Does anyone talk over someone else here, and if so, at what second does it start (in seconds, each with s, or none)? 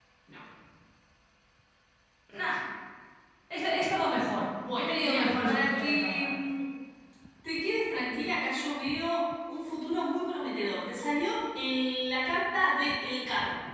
4.6 s